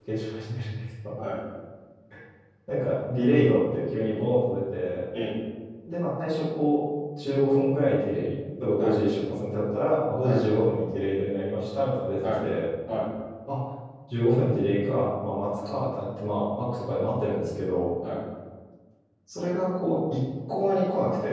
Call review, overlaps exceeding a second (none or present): none